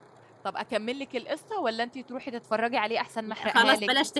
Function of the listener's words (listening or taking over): taking over